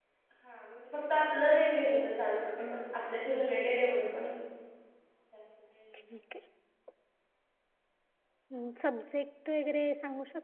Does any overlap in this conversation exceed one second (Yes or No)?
No